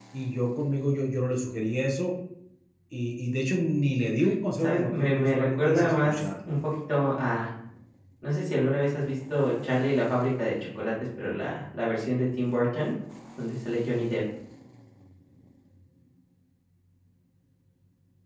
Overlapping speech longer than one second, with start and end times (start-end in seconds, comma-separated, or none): 4.6-6.3